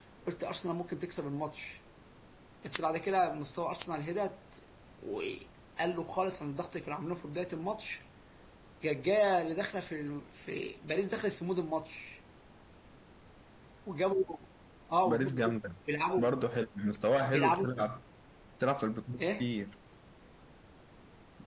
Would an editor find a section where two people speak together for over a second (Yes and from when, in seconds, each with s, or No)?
No